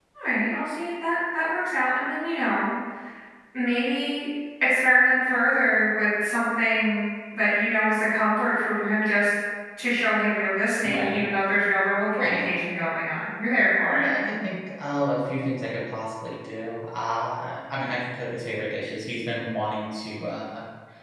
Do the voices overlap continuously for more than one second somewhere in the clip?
No

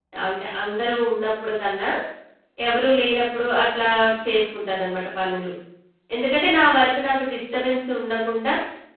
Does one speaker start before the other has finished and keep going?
No

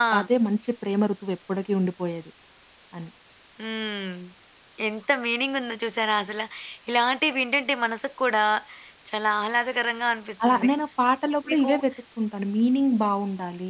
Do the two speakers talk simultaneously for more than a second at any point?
No

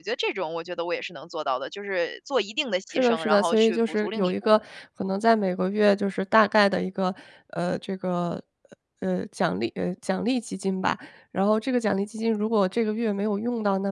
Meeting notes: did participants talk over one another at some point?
Yes, from 2.9 s

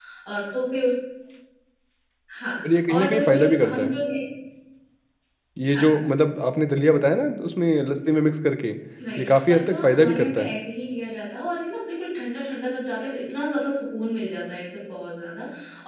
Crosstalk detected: Yes, from 2.7 s

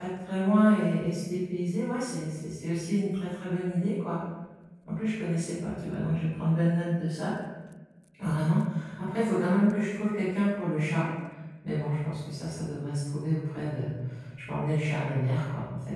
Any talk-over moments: No

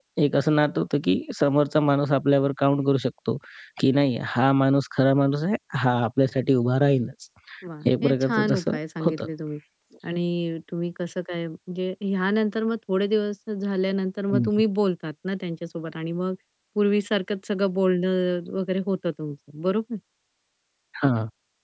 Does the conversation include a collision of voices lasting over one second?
Yes, from 8.0 s

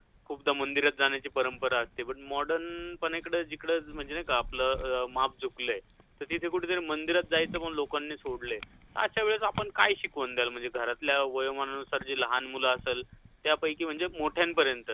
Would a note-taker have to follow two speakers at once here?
No

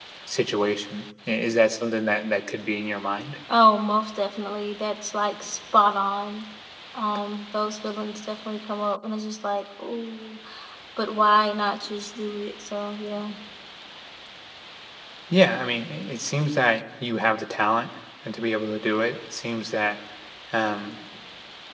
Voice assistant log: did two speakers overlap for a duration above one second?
No

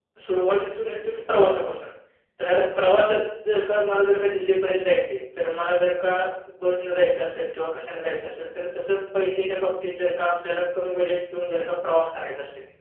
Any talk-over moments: No

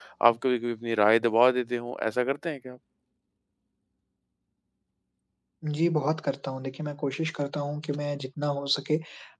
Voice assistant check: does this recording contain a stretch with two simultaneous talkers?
No

